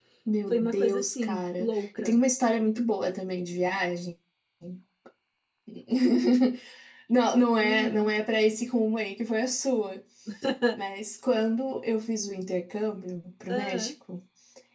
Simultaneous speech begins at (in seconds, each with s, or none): 0.5 s